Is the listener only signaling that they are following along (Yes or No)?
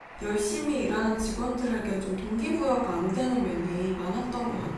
No